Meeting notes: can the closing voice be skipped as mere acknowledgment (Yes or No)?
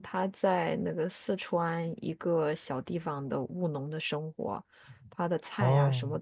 Yes